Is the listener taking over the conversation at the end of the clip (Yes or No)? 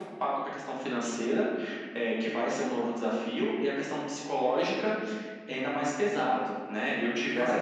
No